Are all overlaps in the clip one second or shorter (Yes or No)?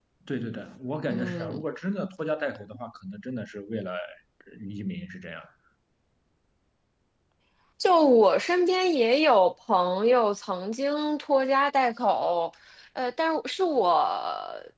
Yes